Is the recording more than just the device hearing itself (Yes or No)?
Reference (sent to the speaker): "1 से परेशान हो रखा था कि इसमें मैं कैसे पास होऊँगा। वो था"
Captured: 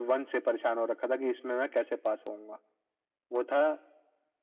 No